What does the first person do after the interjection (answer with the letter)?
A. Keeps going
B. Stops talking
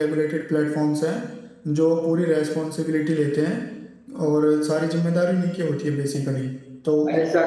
B